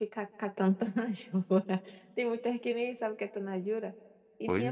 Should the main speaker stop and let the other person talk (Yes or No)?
No